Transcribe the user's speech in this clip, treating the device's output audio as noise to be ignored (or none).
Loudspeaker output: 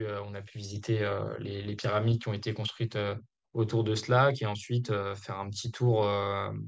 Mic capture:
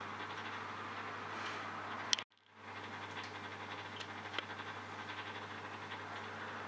none